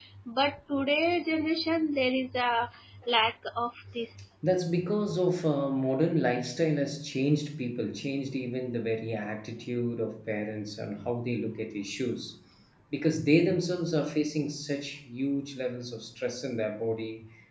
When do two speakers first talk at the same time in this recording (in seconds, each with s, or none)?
none